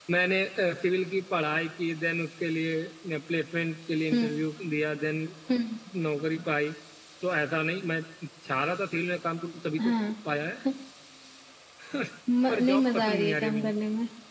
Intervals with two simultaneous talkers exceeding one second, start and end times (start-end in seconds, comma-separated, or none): 12.5-13.7